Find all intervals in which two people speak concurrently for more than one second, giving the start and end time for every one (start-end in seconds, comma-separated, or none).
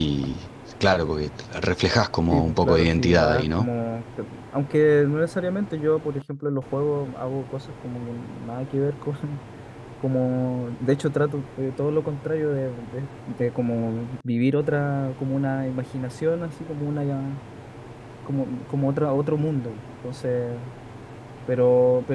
2.3-3.7